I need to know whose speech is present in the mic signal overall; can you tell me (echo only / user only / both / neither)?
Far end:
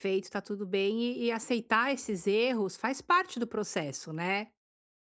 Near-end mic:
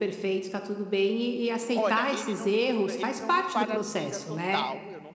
both